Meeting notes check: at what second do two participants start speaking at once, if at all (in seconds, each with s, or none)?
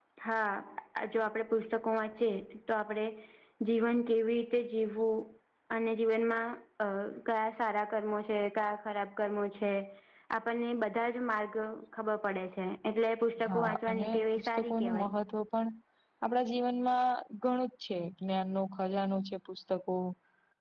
13.4 s